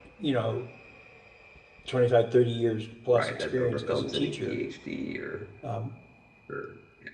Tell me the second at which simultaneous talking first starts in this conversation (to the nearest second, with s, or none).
3 s